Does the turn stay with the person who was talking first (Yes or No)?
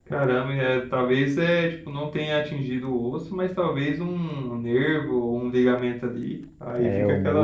No